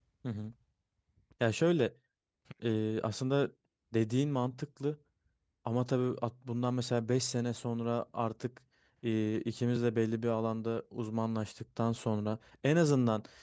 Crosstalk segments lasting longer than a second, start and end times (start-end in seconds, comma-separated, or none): none